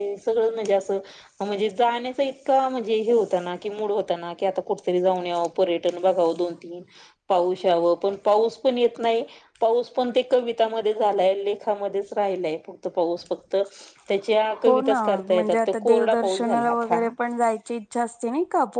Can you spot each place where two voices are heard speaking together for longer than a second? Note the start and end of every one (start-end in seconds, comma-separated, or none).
14.7-16.9